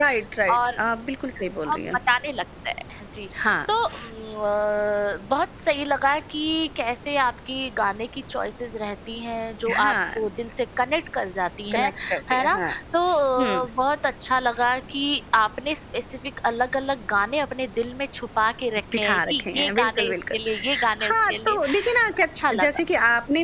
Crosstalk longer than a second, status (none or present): present